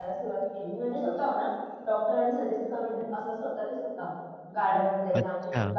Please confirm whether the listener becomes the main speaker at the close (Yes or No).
No